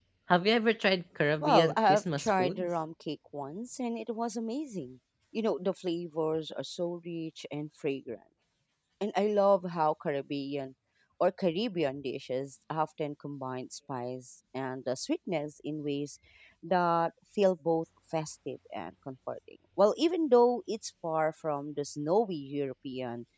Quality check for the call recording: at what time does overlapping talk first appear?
1.4 s

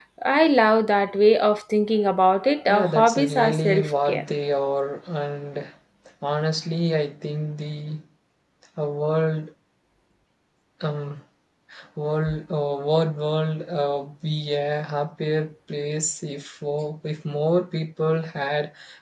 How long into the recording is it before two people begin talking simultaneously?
2.7 s

